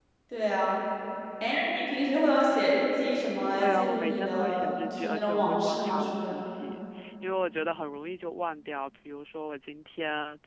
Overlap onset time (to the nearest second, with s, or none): 4 s